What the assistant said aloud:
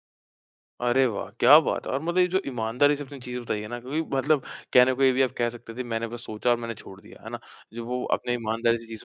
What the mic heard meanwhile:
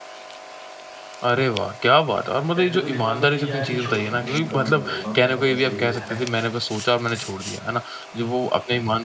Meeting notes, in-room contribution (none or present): present